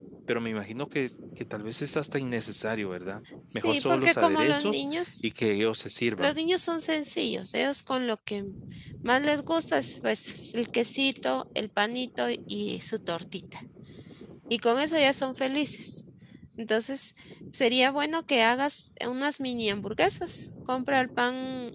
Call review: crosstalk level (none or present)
present